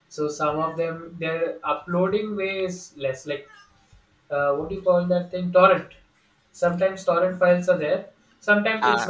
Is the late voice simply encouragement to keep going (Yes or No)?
Yes